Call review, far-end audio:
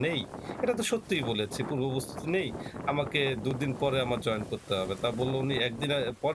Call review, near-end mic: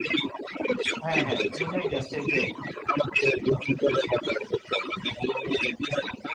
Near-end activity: present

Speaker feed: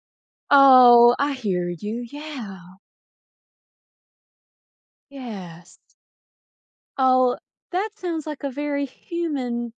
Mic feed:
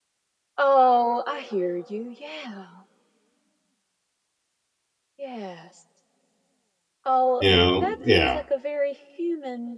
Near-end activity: present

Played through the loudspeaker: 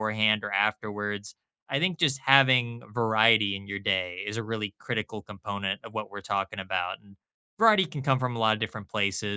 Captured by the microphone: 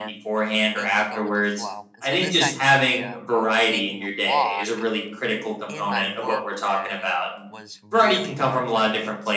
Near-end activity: present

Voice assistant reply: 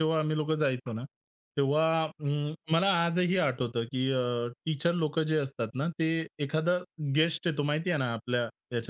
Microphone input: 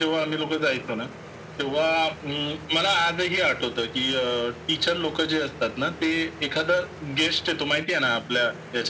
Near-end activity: none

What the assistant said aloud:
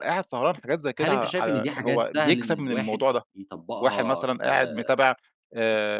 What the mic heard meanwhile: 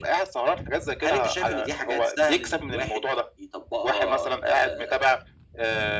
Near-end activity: none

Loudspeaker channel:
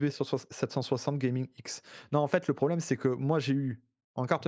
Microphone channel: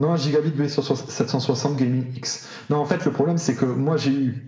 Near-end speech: none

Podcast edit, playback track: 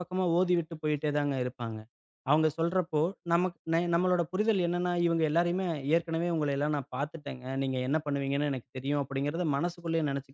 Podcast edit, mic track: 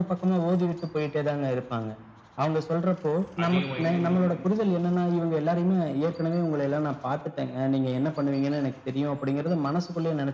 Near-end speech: present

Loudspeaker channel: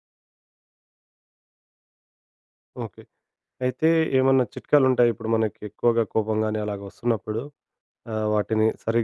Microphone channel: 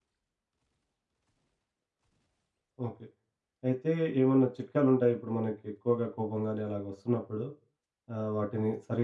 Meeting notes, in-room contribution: none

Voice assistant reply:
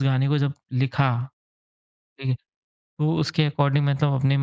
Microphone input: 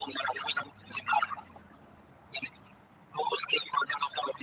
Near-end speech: none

